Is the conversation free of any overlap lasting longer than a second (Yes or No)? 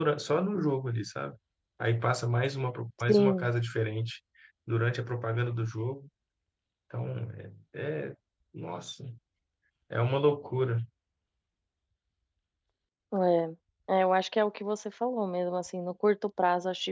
Yes